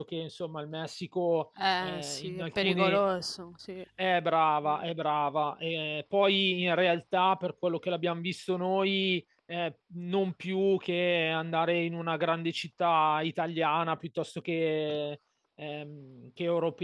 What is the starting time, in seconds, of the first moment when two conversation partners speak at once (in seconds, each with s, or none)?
1.6 s